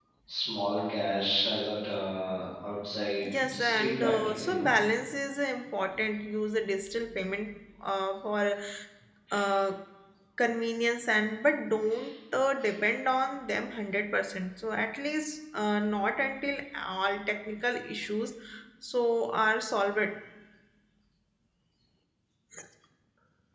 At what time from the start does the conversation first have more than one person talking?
3.2 s

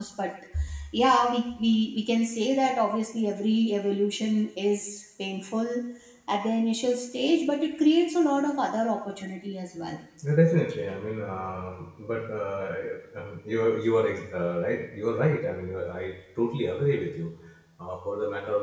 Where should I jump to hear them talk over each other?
none

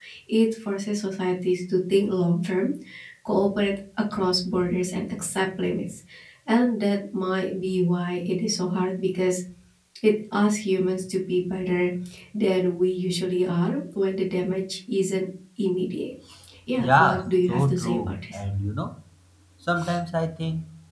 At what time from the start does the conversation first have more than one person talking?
16.8 s

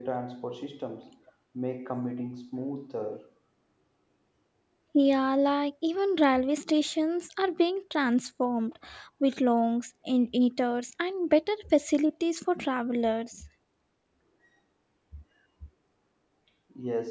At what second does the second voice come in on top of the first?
none

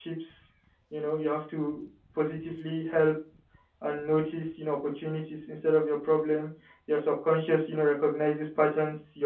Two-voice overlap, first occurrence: none

